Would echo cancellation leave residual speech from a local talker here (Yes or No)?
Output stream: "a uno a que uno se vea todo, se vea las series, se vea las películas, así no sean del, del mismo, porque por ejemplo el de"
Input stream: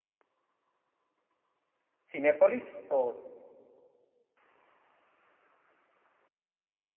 Yes